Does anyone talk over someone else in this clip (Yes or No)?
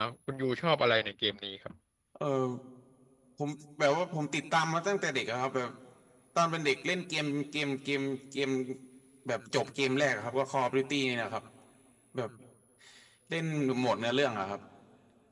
No